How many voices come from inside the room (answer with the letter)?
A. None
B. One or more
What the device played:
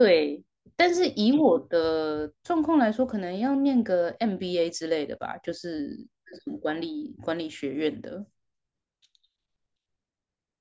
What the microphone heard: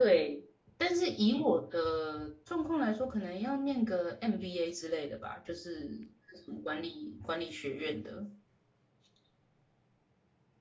A